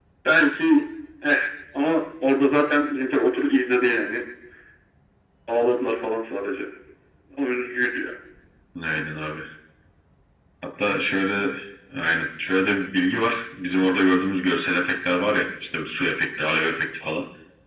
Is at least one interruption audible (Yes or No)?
No